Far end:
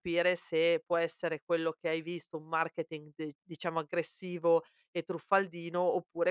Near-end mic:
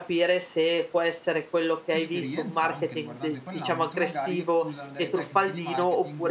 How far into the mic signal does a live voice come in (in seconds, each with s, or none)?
1.9 s